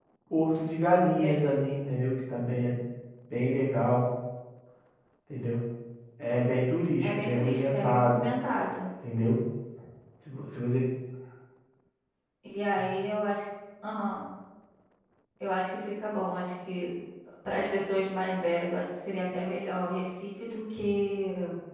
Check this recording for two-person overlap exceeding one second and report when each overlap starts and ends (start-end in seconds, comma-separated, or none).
7.0-8.3